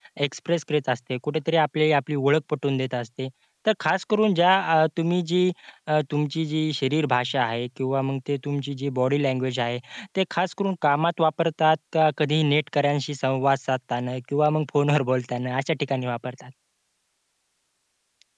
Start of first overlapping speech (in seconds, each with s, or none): none